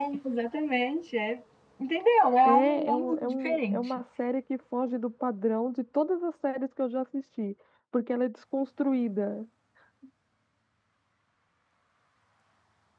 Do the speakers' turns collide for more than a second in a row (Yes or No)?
Yes